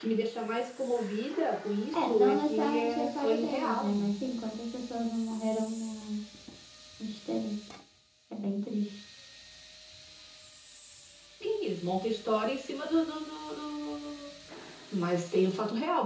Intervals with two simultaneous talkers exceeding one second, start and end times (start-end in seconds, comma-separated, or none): 1.9-4.1